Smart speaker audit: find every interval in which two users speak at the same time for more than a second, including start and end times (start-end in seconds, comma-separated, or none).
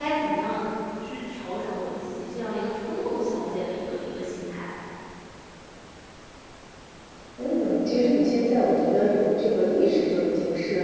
none